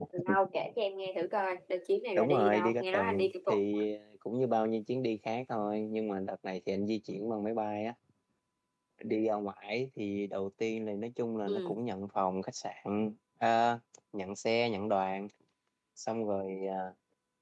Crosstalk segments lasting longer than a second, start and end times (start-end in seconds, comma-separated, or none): 2.1-3.6